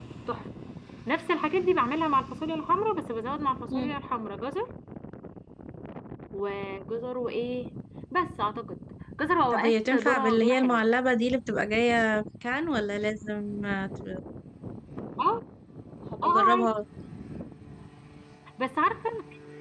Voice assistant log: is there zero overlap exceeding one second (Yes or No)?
No